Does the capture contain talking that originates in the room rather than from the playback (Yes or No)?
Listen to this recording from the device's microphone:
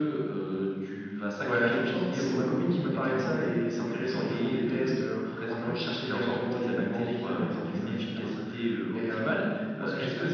No